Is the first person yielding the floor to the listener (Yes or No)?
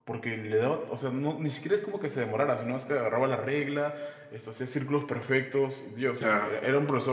No